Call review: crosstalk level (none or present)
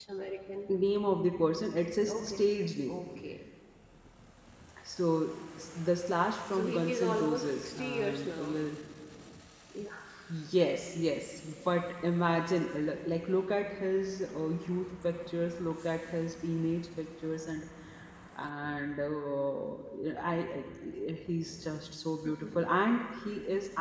present